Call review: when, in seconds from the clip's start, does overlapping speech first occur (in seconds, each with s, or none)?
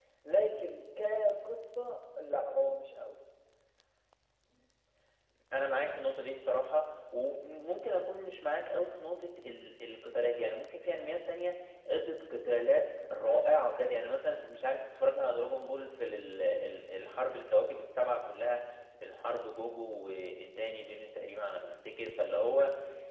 none